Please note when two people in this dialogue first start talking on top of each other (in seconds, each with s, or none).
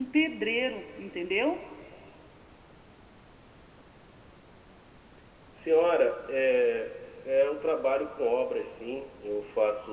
none